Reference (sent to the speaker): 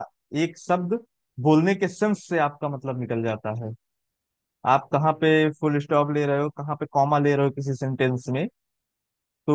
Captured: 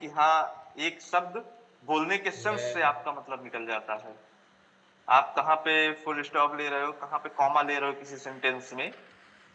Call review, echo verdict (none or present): present